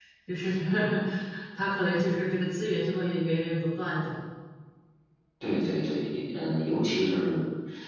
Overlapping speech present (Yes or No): No